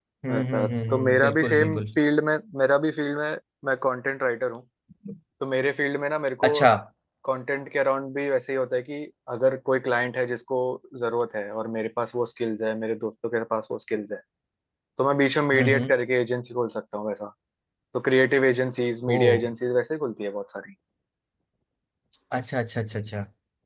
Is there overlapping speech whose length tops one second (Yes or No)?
Yes